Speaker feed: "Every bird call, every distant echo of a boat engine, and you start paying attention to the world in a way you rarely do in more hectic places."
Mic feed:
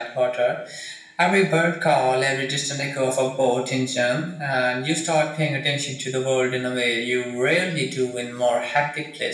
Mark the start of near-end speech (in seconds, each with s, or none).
none